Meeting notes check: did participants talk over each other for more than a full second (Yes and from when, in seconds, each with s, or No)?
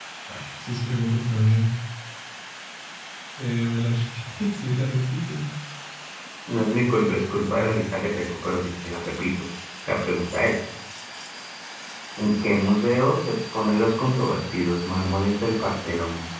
No